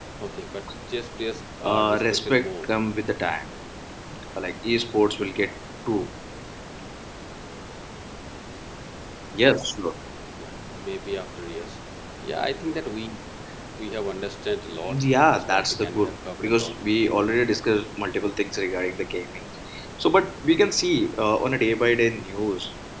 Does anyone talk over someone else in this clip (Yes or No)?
Yes